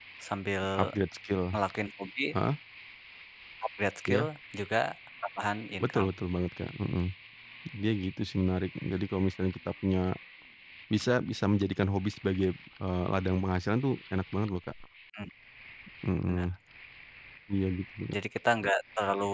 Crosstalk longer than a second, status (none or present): none